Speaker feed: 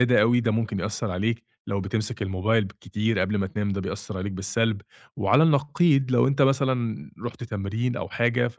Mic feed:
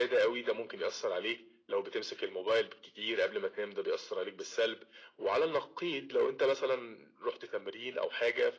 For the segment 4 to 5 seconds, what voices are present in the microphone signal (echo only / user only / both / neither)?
echo only